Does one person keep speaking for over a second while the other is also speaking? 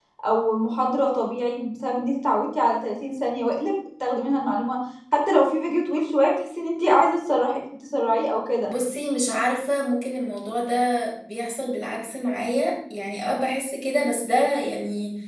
No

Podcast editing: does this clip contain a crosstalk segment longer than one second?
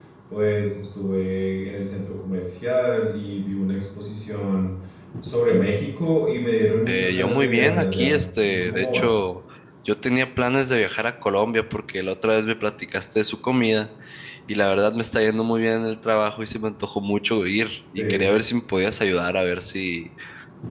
Yes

